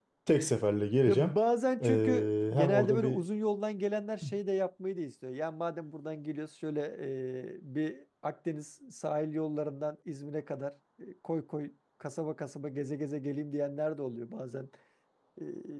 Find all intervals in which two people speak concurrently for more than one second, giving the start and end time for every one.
1.8-3.2

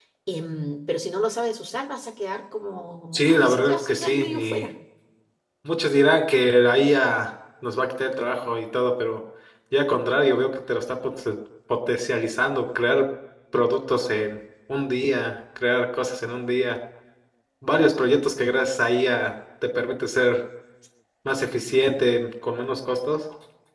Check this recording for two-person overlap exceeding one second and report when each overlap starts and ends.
3.1-4.7

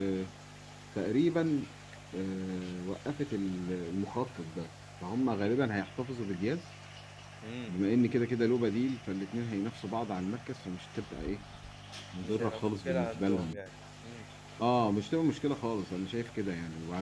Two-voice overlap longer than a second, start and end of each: 12.2-13.6

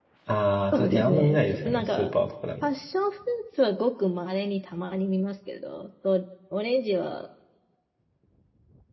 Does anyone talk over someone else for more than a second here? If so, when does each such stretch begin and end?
0.7-2.1

